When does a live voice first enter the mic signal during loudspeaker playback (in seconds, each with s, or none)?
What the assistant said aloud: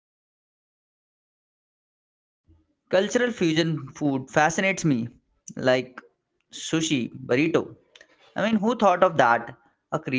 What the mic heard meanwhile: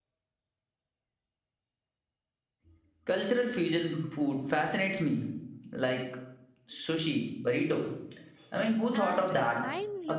8.9 s